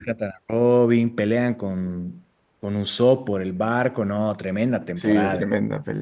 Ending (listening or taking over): taking over